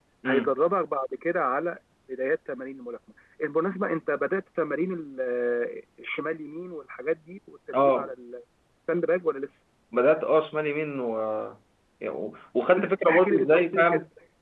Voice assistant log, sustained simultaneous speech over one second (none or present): present